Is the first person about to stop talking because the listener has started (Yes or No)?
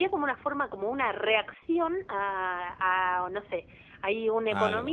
No